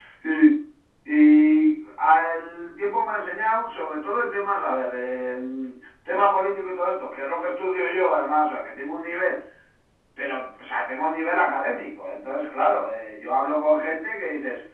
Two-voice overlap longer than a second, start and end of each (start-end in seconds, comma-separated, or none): none